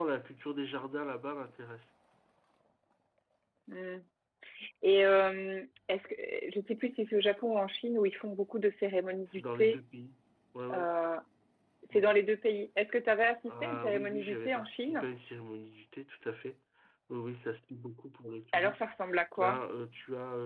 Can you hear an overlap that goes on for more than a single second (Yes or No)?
Yes